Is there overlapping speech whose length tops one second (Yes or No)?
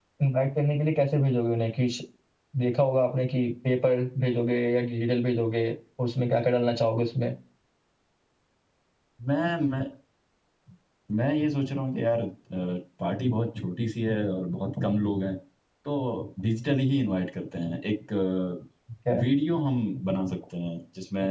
No